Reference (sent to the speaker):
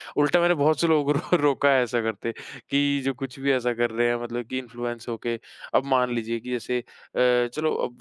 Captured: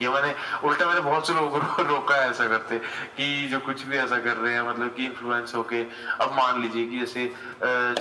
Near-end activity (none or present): none